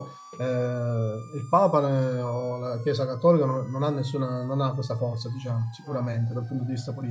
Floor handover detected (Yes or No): No